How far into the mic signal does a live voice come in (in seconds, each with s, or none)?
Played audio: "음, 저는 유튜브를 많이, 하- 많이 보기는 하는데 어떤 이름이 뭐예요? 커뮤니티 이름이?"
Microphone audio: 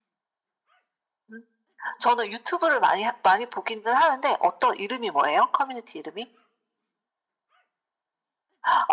none